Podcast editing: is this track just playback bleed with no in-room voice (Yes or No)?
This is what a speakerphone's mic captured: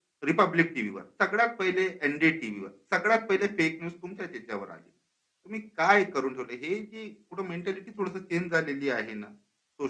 Yes